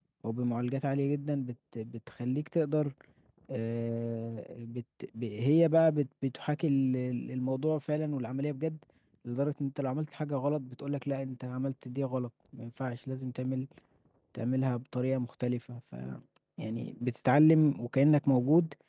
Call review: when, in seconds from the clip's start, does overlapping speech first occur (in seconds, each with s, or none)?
none